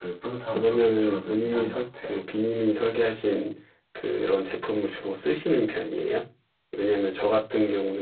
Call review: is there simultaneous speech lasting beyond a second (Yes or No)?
Yes